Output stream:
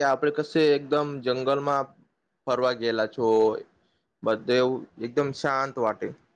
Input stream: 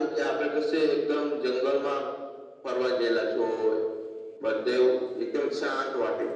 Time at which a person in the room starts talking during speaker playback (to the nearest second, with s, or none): none